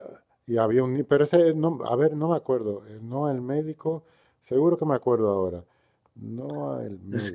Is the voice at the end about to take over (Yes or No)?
Yes